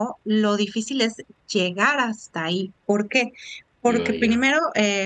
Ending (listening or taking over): listening